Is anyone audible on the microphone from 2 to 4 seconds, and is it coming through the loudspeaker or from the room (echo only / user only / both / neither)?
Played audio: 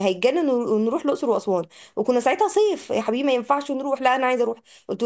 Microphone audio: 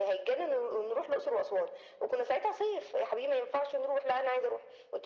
echo only